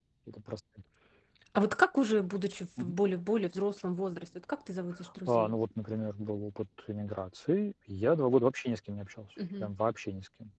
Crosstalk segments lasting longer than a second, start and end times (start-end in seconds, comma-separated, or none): none